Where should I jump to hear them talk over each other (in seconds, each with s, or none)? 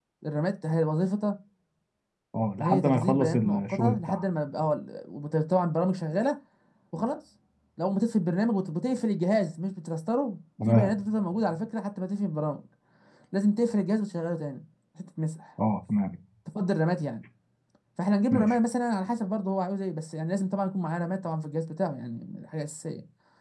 2.6 s